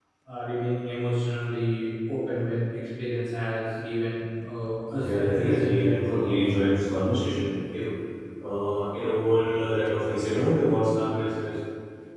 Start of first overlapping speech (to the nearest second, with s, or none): 5 s